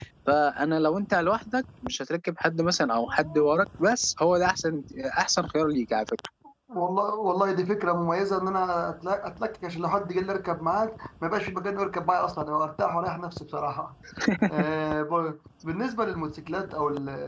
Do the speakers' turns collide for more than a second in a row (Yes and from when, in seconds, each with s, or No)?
No